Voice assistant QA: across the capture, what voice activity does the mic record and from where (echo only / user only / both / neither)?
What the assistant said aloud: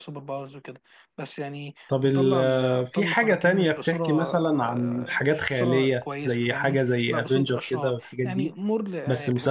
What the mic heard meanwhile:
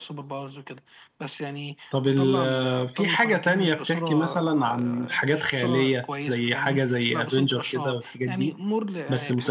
echo only